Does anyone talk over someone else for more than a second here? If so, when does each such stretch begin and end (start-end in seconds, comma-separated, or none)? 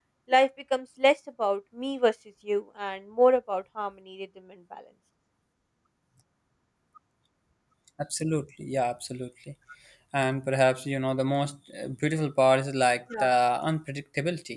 none